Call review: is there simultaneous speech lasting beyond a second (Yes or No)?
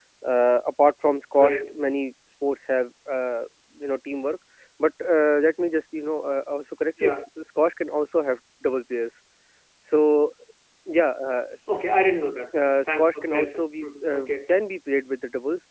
Yes